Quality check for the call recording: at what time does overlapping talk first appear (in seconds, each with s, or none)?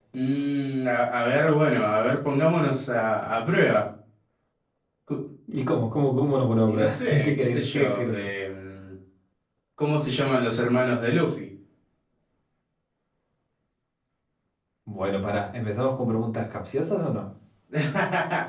6.7 s